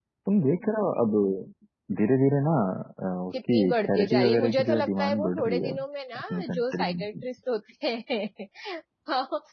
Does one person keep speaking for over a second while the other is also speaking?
Yes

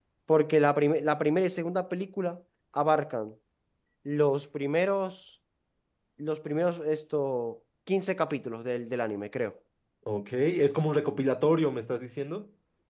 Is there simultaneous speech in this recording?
No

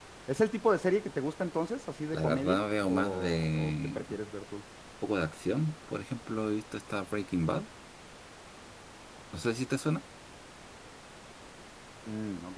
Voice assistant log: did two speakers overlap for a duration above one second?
Yes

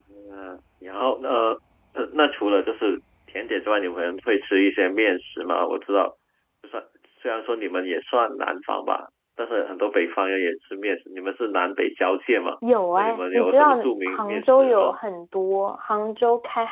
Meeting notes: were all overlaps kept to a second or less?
No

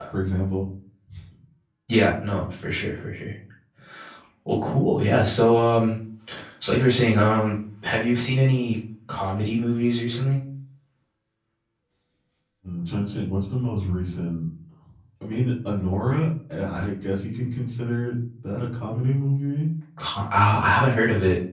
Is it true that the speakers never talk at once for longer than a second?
Yes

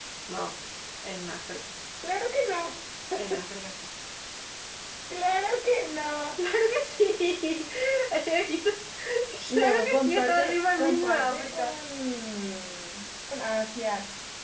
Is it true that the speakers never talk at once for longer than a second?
No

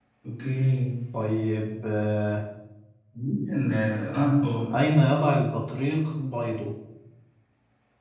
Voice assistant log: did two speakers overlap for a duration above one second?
No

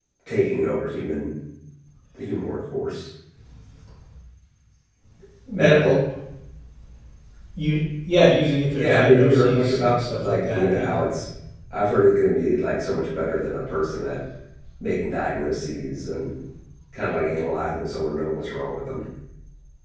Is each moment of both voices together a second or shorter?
No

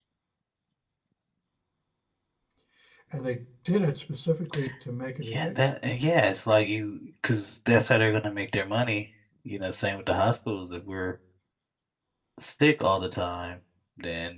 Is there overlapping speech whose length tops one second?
No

